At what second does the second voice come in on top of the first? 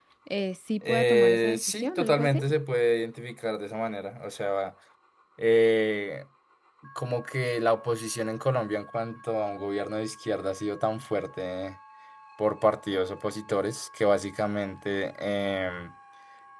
0.9 s

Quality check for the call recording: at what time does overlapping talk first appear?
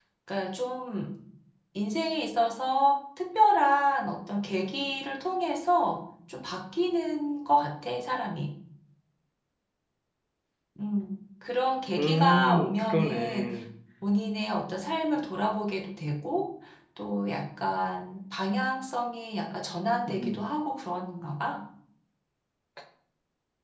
12.0 s

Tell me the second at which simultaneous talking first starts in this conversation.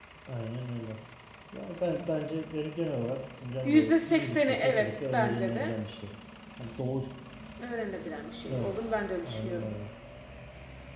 3.6 s

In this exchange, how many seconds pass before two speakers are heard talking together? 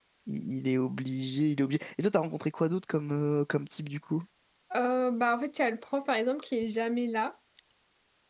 none

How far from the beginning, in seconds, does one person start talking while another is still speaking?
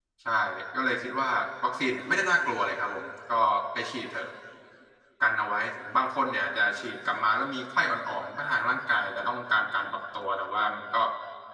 none

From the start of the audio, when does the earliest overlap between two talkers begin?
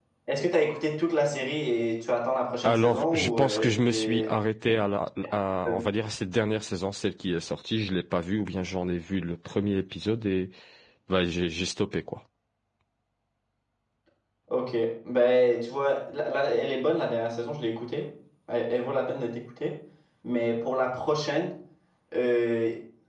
2.6 s

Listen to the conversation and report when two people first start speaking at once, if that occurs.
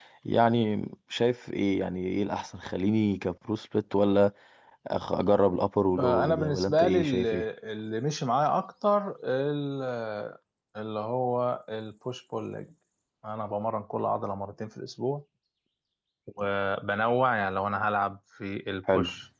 6.0 s

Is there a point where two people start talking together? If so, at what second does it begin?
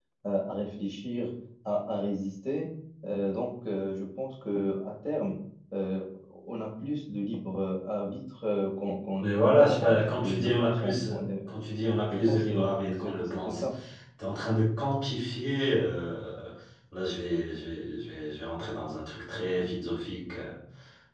9.2 s

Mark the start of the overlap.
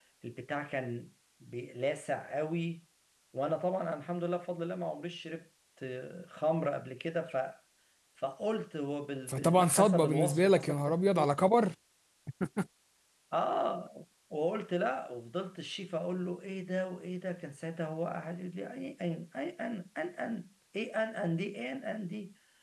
9.3 s

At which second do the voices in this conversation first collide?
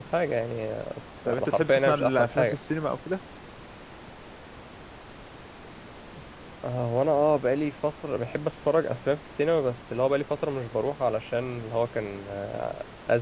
1.3 s

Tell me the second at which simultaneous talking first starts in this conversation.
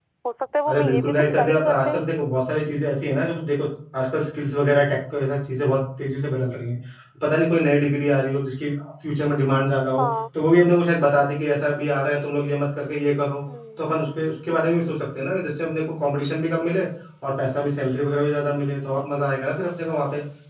0.7 s

